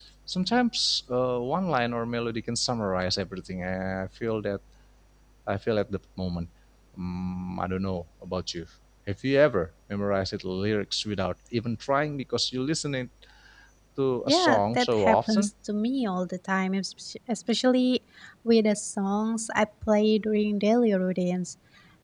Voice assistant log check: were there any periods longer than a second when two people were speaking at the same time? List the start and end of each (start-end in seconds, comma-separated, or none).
14.3-15.5